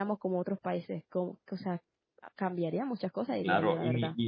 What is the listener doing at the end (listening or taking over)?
taking over